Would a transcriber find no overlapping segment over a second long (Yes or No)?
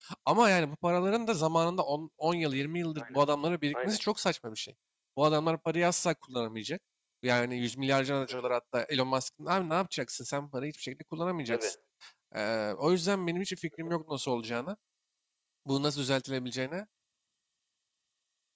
Yes